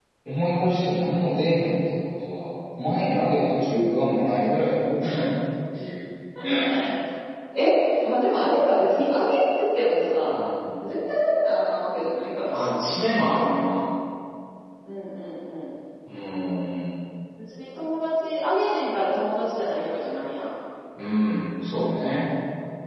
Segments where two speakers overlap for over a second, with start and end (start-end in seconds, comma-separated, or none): none